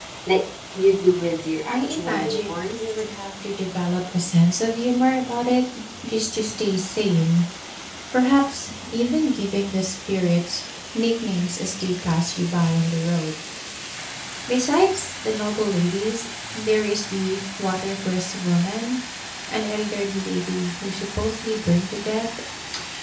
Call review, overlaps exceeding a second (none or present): present